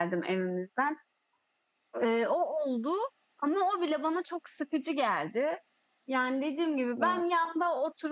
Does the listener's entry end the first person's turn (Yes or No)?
No